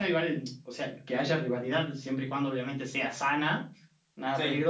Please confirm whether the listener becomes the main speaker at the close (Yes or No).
No